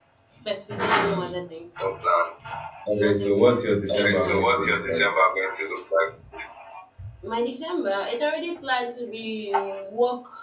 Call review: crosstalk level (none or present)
present